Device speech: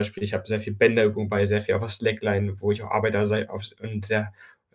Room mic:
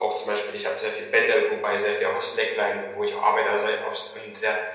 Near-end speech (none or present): none